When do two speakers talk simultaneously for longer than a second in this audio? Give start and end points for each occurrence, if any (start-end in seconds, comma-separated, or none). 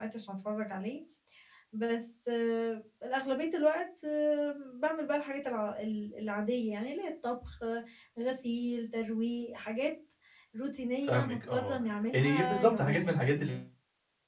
11.1-13.6